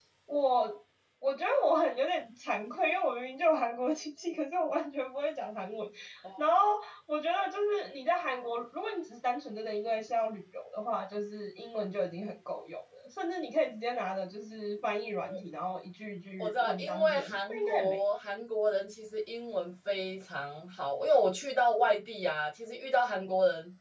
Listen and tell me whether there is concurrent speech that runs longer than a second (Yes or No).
Yes